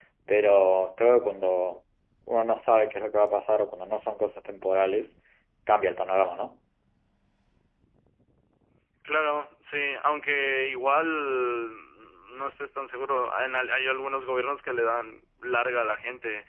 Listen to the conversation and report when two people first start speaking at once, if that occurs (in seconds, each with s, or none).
none